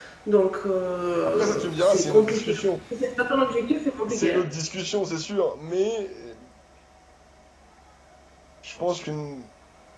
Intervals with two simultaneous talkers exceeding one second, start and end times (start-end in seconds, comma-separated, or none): 1.2-2.5